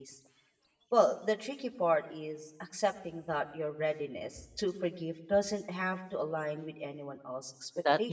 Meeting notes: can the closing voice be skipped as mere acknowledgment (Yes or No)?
No